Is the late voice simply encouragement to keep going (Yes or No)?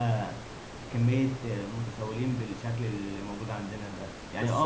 Yes